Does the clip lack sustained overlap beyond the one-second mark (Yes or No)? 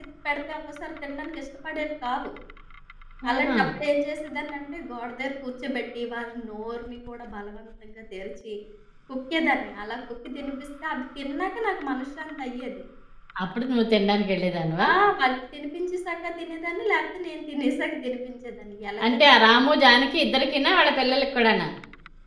Yes